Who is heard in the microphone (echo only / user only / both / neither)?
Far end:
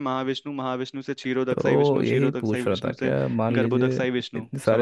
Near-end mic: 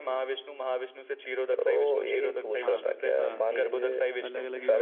both